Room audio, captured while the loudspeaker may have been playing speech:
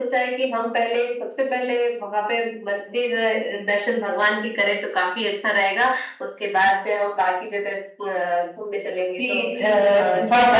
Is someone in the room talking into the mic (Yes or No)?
Yes